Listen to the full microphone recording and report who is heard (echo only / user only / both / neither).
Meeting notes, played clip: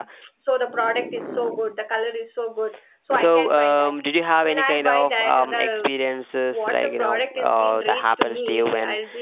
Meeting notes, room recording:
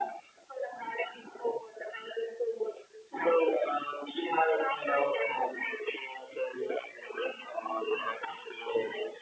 echo only